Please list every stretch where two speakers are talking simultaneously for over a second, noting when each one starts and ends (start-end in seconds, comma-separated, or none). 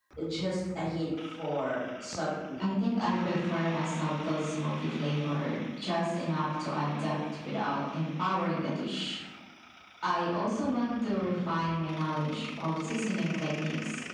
none